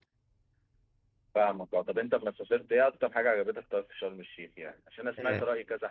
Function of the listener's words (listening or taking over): listening